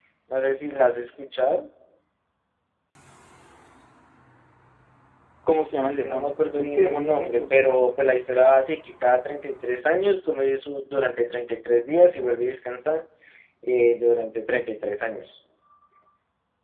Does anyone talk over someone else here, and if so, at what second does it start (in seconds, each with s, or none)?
5.9 s